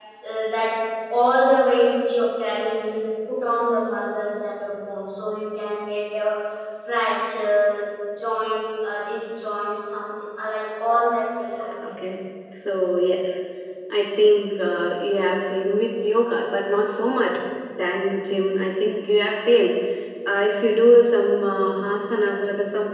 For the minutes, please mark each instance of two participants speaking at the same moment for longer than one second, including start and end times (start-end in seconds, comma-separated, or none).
none